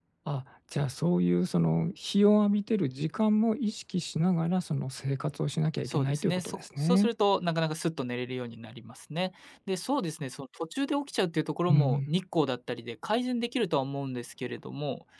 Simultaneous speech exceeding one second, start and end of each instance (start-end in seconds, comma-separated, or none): 5.8-7.1